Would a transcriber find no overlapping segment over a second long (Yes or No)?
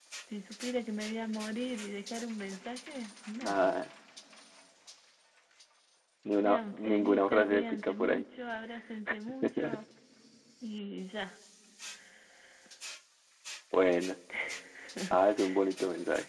No